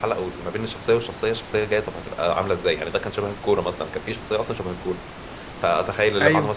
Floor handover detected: No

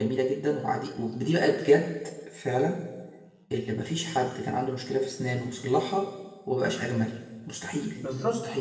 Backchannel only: No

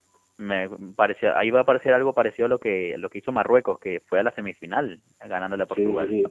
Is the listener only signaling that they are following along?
No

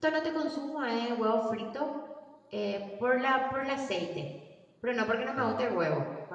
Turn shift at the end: No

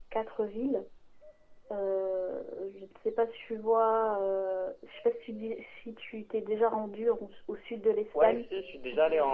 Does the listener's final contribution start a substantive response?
Yes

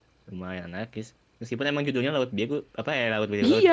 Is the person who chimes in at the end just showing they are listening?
No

